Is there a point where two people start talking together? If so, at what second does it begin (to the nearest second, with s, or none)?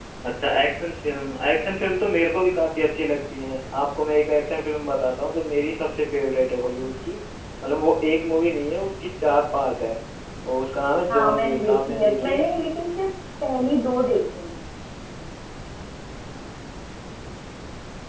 11 s